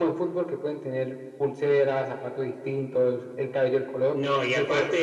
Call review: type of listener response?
taking over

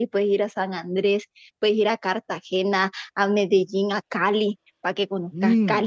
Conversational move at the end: listening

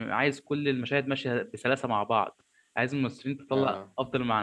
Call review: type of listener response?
listening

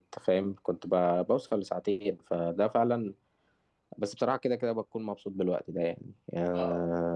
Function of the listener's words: taking over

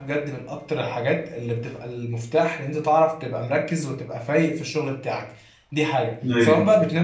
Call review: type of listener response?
listening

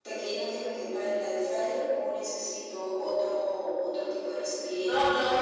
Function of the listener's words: taking over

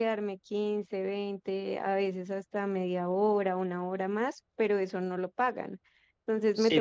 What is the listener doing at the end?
taking over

